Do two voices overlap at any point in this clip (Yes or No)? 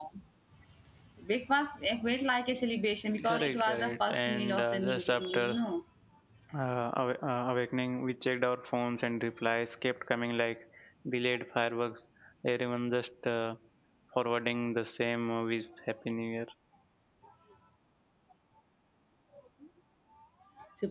Yes